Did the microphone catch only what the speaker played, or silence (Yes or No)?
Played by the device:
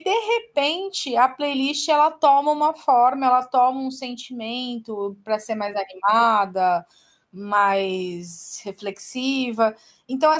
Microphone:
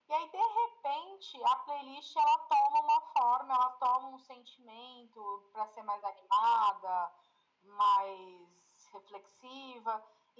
Yes